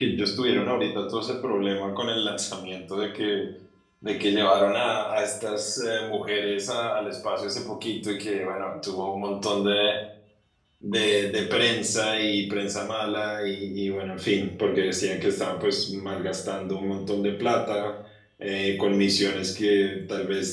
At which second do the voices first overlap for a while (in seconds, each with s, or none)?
none